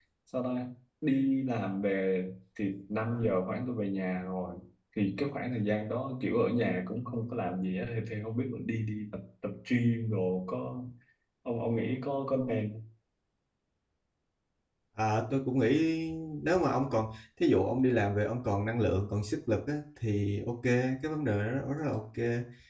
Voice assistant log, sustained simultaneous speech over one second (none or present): none